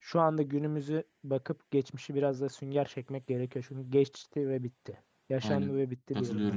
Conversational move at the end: taking over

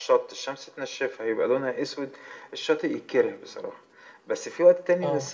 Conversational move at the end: listening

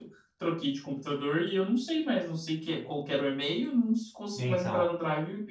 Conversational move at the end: listening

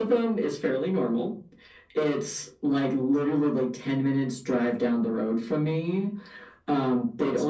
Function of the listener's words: listening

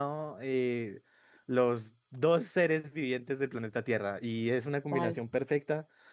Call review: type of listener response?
listening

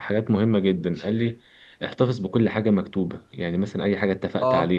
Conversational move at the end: listening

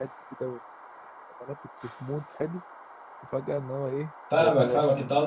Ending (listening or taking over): taking over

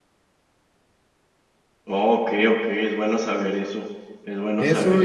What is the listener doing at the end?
taking over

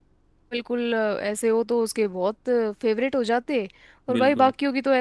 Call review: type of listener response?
listening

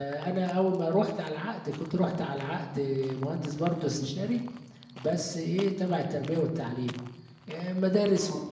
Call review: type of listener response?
listening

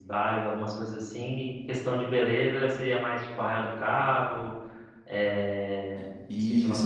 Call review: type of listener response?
taking over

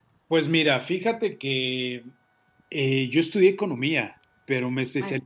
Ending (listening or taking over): listening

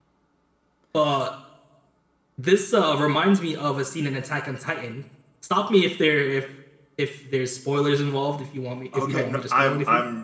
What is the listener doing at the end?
taking over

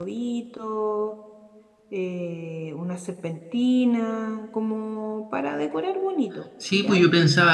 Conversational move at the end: taking over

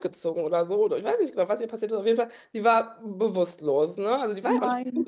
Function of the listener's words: listening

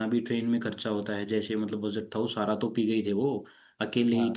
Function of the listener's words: listening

